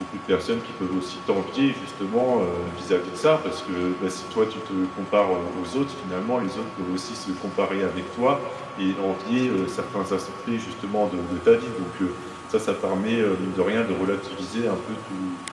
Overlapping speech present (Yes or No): No